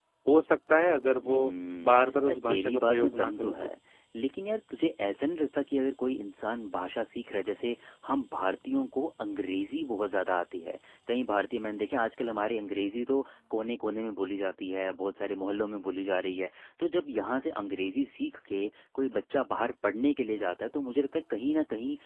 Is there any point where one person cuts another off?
Yes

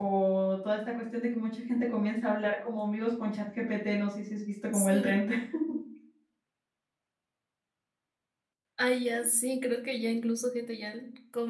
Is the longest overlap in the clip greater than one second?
No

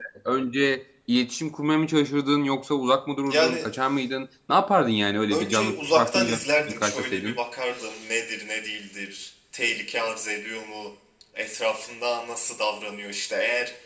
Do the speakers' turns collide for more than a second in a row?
Yes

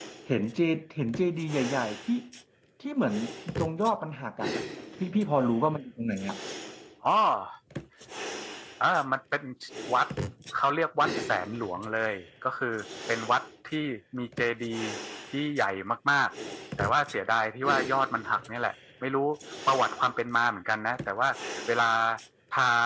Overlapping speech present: No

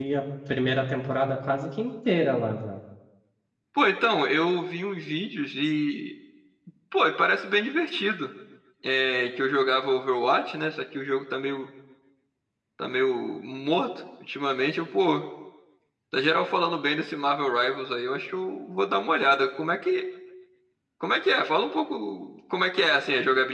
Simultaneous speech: No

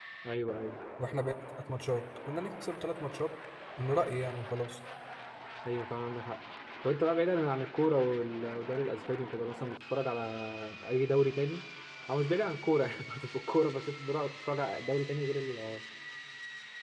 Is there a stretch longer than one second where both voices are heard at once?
No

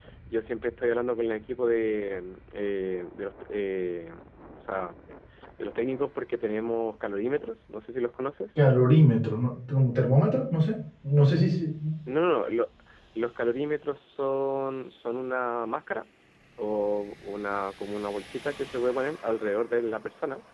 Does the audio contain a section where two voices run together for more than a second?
No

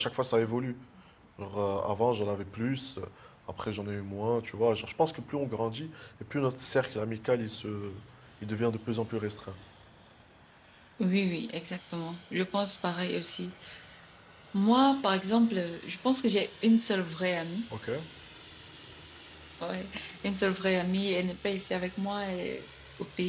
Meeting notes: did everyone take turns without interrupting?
Yes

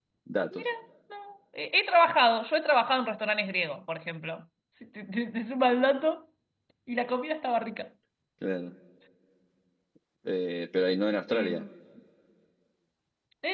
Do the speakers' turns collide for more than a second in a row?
No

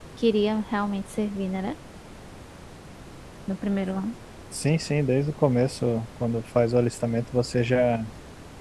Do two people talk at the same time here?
No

